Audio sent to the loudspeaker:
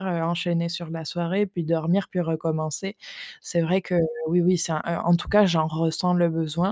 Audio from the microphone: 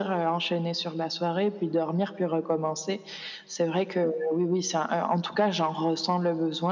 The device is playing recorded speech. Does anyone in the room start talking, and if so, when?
none

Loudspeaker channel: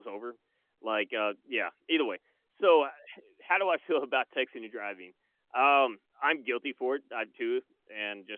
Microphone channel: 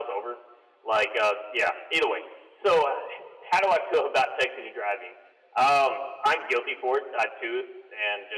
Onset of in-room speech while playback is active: none

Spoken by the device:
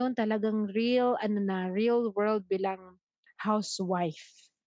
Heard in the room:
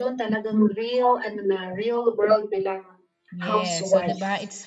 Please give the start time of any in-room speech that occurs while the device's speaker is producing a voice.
3.3 s

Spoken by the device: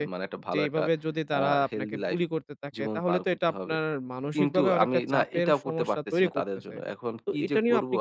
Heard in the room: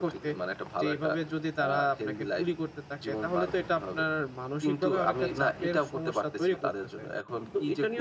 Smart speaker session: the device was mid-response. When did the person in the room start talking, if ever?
none

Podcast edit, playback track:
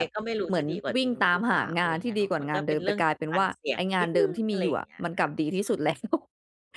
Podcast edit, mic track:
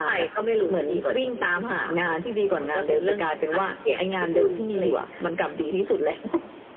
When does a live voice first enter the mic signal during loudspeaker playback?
none

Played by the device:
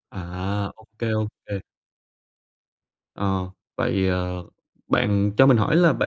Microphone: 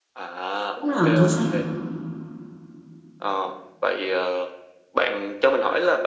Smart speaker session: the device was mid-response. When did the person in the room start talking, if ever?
0.7 s

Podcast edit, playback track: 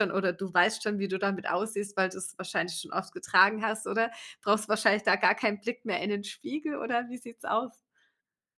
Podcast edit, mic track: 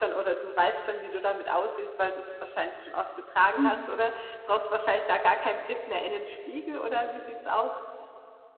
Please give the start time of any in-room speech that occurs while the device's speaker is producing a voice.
3.6 s

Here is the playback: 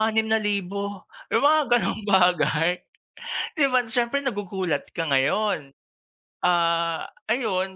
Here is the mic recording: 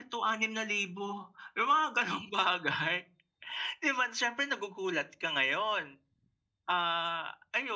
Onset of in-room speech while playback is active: none

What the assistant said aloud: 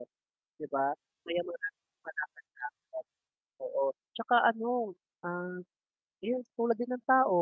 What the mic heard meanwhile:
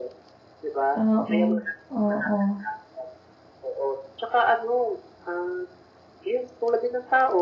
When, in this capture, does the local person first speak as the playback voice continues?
1.0 s

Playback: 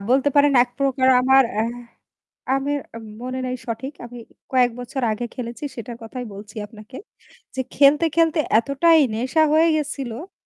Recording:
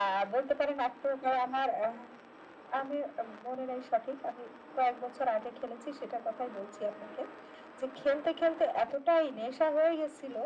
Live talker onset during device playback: none

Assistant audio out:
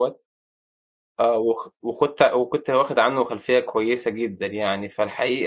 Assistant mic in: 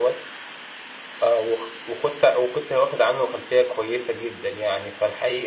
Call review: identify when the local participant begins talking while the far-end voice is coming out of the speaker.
none

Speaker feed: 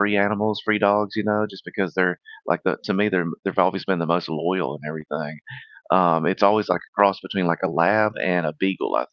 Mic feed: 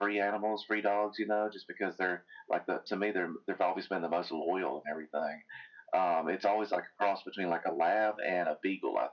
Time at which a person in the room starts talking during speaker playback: none

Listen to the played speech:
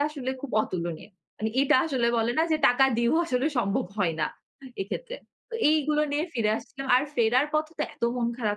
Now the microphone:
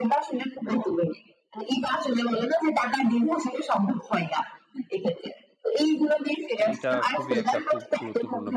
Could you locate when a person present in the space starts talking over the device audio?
6.6 s

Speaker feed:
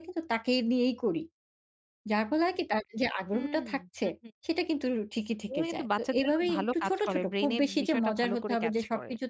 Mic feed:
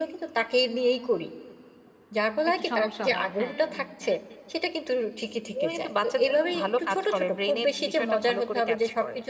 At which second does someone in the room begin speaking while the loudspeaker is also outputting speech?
2.5 s

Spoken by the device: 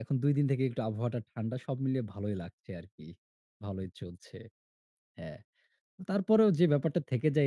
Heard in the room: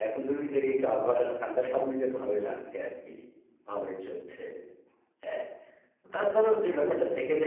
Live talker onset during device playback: none

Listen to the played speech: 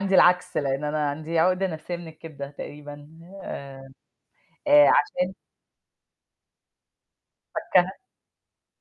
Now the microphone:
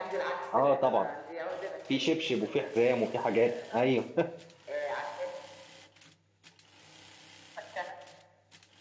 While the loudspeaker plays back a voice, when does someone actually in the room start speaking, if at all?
0.5 s

